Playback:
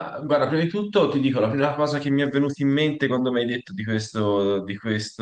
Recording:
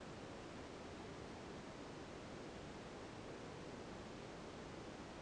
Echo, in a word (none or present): none